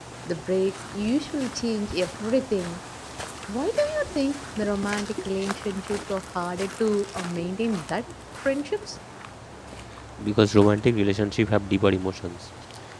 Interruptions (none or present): none